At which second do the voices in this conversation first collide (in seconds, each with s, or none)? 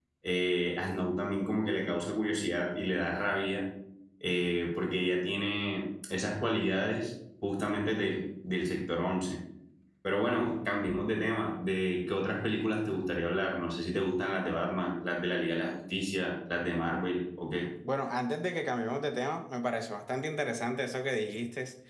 none